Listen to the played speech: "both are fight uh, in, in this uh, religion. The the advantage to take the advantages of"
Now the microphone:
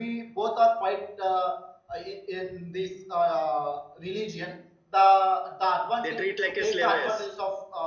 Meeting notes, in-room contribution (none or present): present